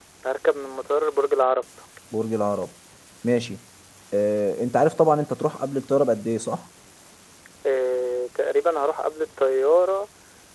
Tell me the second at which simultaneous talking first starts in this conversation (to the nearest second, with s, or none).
none